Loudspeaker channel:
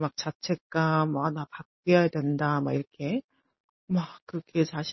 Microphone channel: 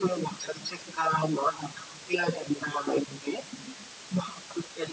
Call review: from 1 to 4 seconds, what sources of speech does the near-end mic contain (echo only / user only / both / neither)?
echo only